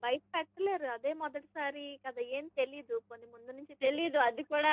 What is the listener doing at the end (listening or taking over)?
taking over